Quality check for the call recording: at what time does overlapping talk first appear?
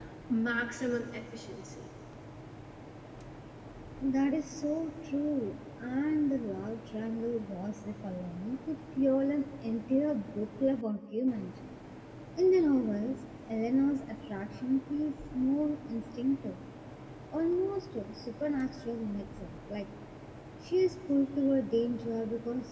none

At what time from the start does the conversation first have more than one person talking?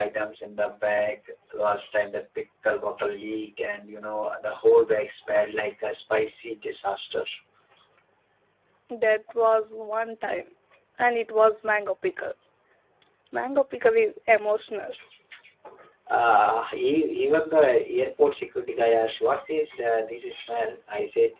none

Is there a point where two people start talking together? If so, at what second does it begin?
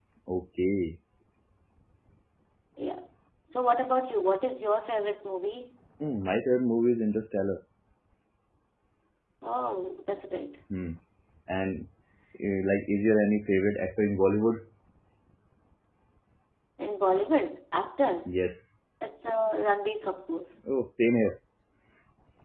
none

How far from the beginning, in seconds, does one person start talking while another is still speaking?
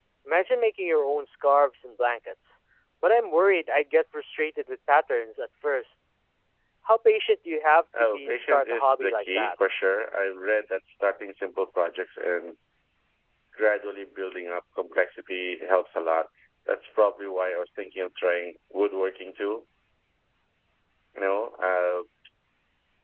7.9 s

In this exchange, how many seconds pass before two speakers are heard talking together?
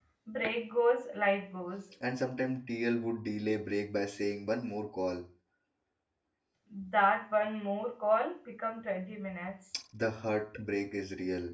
none

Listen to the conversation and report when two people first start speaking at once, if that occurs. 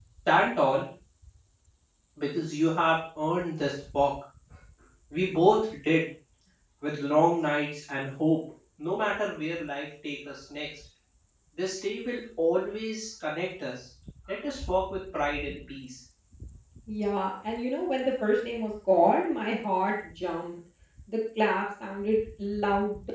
none

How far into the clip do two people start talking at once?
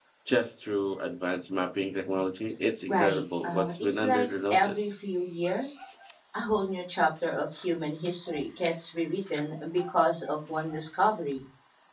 2.9 s

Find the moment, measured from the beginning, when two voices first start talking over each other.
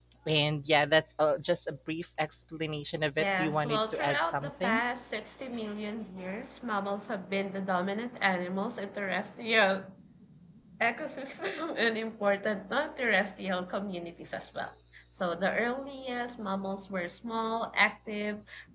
3.2 s

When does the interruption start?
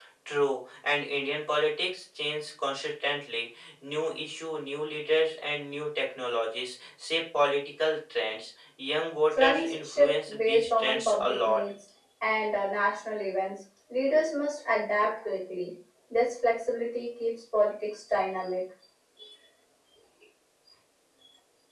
9.4 s

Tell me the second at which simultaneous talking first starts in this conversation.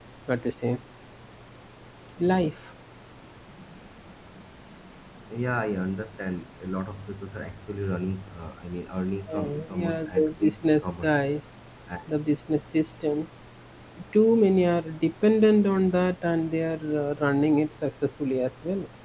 9.3 s

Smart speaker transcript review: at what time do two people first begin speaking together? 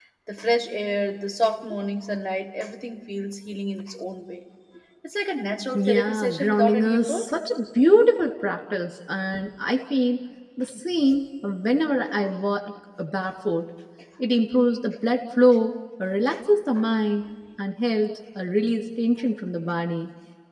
5.7 s

